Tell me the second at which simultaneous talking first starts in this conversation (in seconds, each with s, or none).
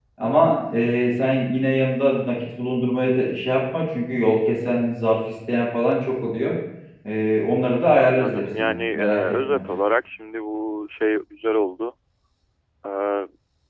8.0 s